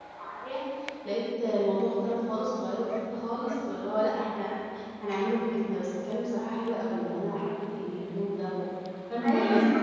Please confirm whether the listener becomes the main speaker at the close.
Yes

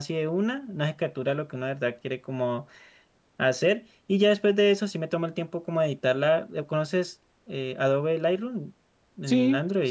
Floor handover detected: Yes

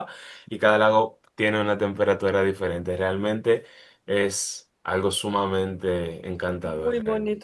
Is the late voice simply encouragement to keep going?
No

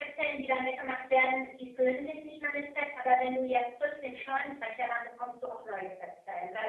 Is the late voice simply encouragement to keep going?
Yes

